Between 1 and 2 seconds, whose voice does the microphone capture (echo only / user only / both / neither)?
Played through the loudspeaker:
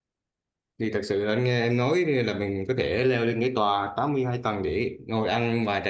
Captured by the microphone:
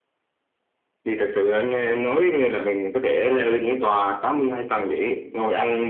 echo only